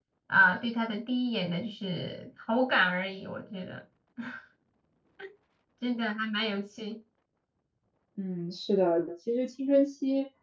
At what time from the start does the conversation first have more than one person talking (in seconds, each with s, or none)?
none